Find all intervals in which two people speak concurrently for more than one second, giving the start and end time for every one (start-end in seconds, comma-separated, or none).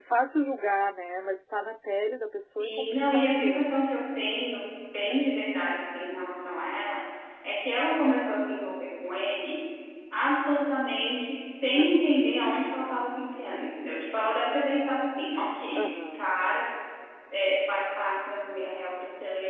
2.6-3.8